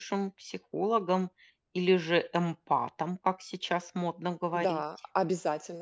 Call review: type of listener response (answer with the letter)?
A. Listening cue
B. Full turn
B